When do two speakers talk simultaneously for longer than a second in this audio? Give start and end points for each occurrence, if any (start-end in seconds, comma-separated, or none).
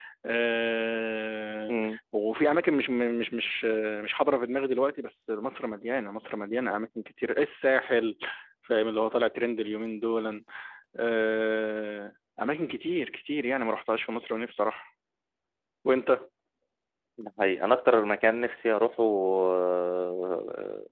none